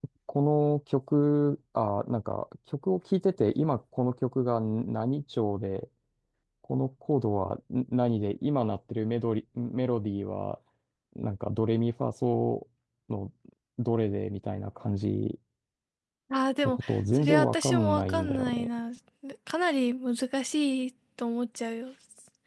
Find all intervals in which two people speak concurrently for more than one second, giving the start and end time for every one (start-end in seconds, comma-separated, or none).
16.6-18.7